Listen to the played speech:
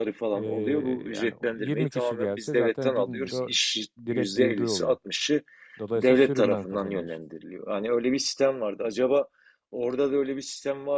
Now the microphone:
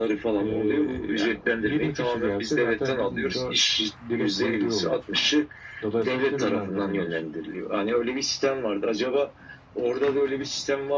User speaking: No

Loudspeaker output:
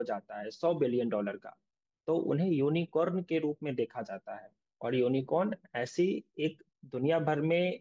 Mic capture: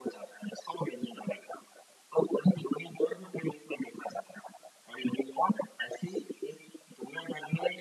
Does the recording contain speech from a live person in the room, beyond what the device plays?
No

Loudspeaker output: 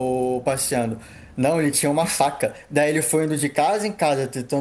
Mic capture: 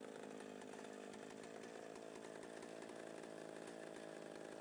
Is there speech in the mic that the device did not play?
No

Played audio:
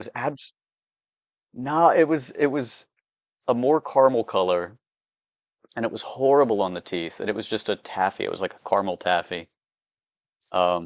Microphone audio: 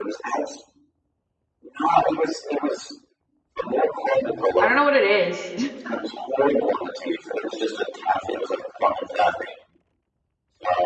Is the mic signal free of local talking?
No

